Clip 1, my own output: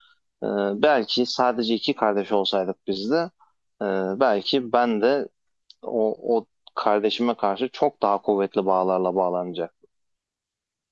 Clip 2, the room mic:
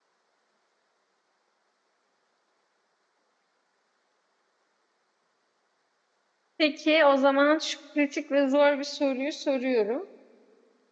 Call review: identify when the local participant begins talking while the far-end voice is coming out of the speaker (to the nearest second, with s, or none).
7 s